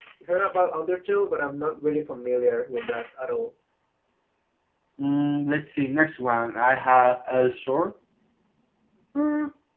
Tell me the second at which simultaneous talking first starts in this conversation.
none

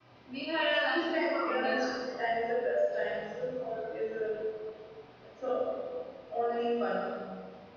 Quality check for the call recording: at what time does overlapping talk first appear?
0.6 s

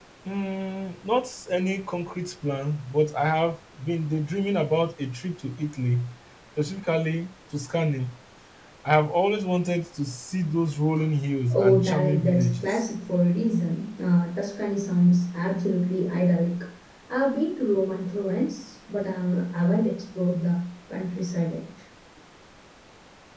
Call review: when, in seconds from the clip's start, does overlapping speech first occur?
11.5 s

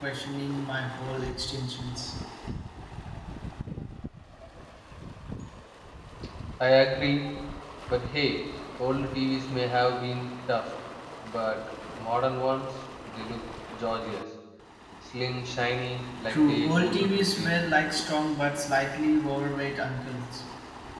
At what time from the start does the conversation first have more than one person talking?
16.3 s

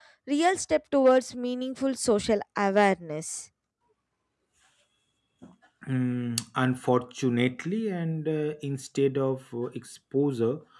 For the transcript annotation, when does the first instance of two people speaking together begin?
none

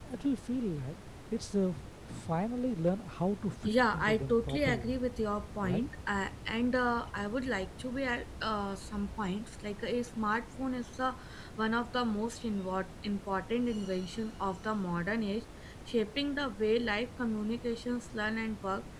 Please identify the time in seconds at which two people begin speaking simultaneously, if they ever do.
3.6 s

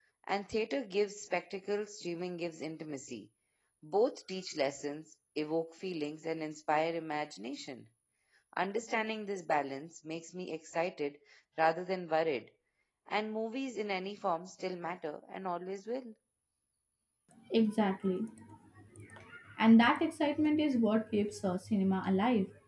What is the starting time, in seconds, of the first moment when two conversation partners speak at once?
none

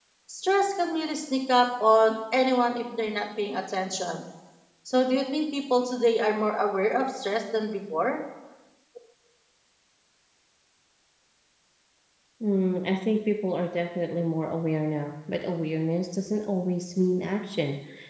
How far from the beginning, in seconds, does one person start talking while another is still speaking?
none

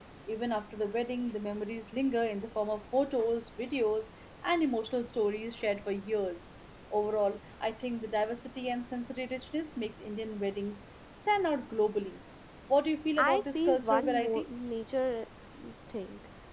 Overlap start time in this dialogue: 13.2 s

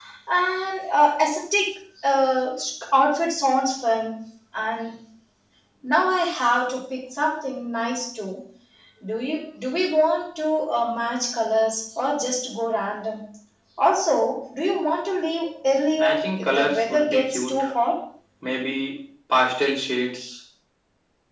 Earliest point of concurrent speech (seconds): 16.0 s

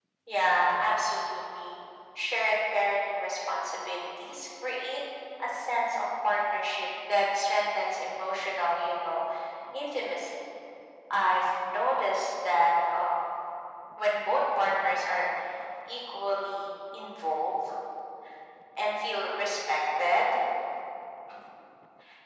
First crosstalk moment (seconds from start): none

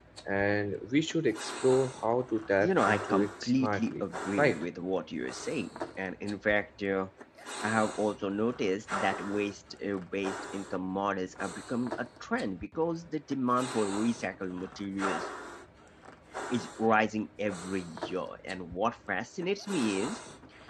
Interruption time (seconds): 2.6 s

